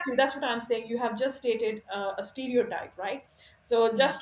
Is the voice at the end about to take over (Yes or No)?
No